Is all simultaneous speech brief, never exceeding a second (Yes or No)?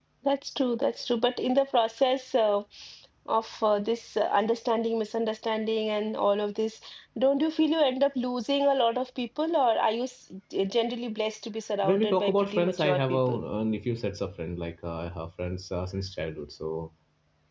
No